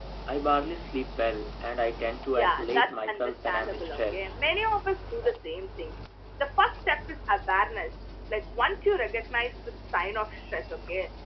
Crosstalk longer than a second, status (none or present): present